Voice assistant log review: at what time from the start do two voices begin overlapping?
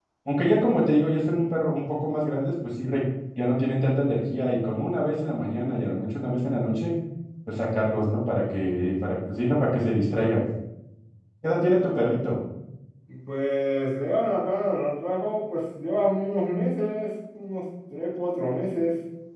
none

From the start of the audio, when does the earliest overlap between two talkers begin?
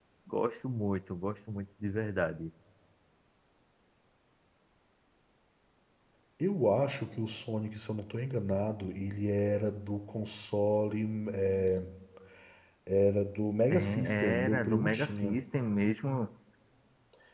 13.7 s

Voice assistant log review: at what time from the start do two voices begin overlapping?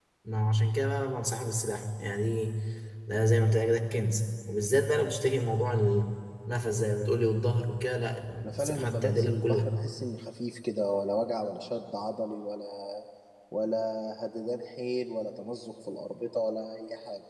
8.4 s

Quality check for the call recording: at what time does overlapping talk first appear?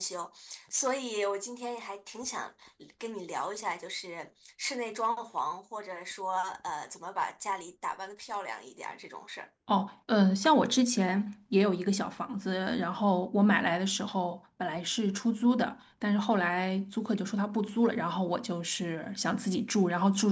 none

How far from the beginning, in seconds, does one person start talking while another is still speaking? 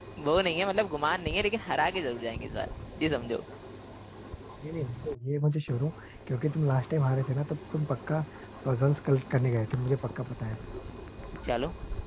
none

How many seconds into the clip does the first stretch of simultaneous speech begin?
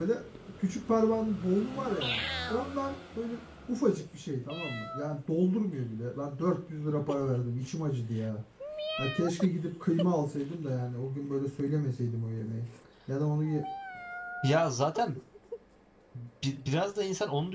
none

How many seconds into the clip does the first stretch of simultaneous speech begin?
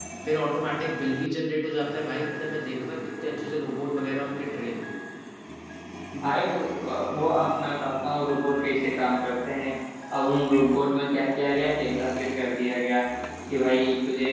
none

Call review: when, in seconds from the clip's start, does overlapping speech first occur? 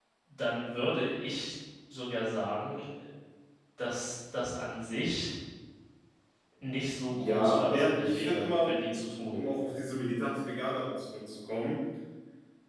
7.1 s

